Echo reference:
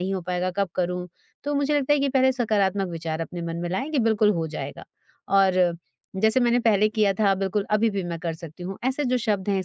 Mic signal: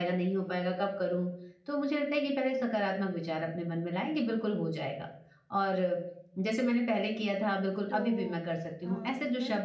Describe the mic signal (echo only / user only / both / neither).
both